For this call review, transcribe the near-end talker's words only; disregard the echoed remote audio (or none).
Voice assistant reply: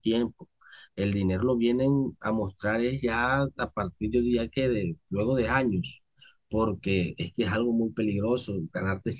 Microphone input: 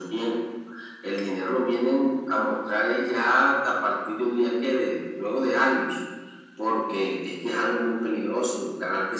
none